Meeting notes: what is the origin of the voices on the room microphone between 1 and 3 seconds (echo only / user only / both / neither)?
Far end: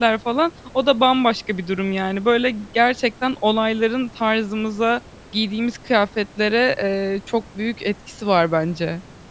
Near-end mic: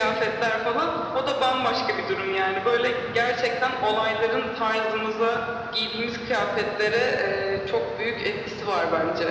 echo only